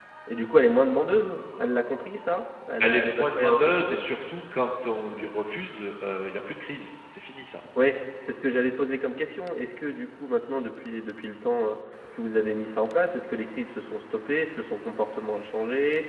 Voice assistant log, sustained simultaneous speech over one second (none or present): present